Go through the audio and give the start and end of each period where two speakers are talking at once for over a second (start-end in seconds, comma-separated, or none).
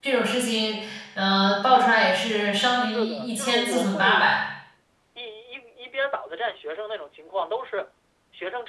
2.9-4.3